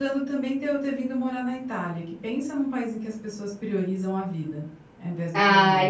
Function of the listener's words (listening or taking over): taking over